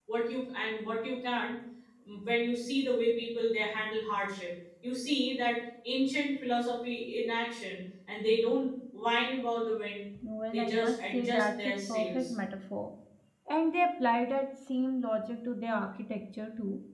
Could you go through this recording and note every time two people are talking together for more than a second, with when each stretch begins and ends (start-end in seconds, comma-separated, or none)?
10.5-12.3